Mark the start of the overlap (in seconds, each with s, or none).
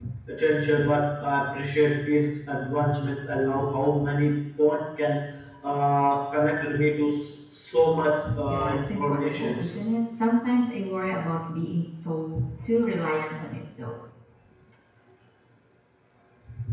8.5 s